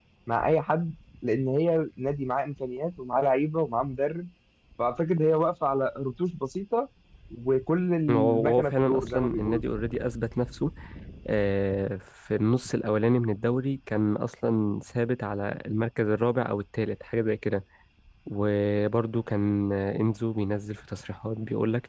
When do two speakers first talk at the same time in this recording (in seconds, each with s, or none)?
8.1 s